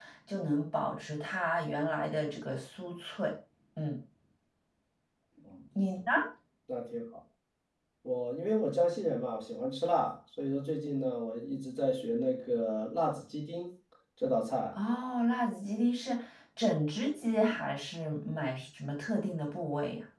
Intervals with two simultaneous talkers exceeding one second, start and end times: none

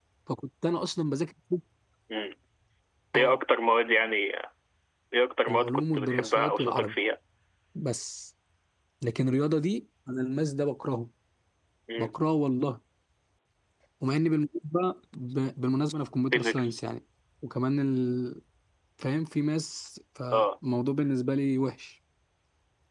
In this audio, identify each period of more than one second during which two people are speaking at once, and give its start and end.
5.5-6.9

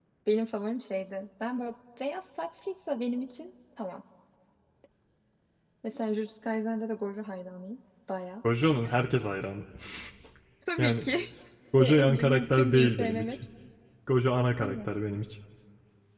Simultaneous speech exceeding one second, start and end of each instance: 11.8-13.4

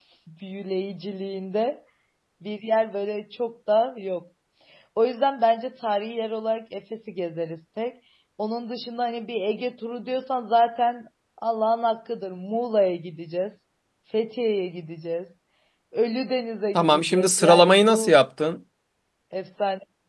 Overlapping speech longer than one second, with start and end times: 16.8-18.1

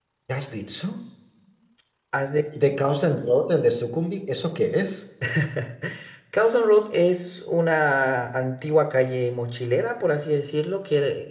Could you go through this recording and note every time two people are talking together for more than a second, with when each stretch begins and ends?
none

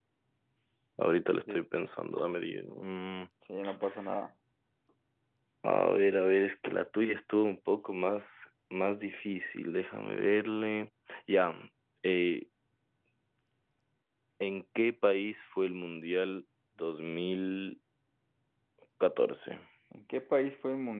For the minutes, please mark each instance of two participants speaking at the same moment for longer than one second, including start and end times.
none

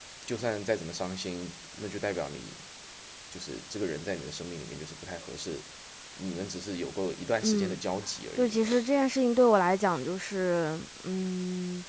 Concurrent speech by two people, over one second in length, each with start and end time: none

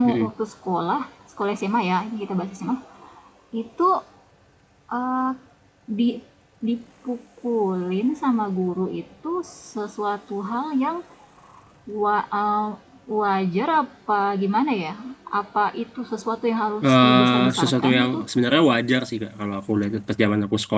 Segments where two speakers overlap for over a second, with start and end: 16.8-18.2

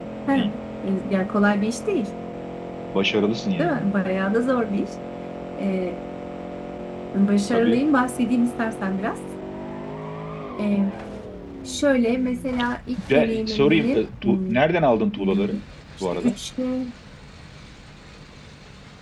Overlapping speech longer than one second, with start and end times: 13.1-14.6

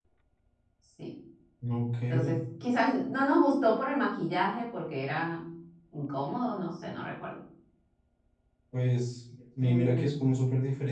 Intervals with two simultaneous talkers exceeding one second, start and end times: none

